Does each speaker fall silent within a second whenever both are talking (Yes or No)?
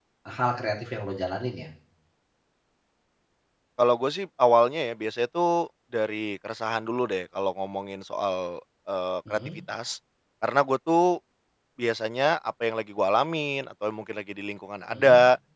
Yes